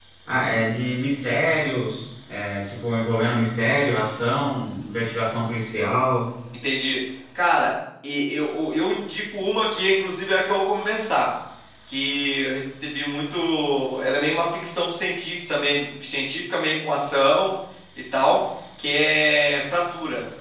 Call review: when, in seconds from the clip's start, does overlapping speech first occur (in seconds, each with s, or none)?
none